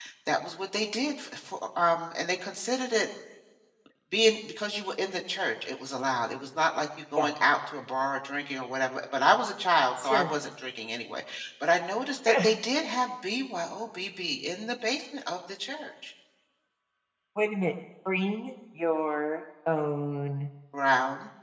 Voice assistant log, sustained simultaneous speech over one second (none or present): none